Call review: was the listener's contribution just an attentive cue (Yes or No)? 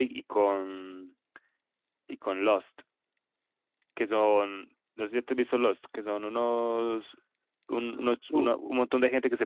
Yes